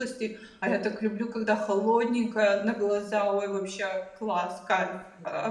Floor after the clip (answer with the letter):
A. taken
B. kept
A